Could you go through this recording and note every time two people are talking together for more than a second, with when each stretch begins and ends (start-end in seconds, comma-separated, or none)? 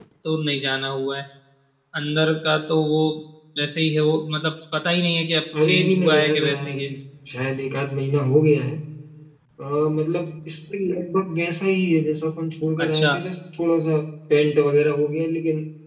5.6-6.9